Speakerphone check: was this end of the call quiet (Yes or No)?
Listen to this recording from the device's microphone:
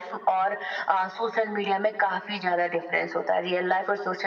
Yes